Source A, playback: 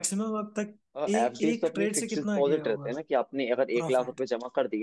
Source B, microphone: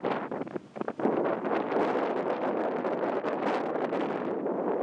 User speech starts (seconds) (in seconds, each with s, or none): none